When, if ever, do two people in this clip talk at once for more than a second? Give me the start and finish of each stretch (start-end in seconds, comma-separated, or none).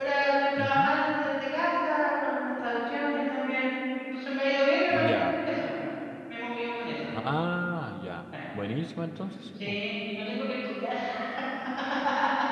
none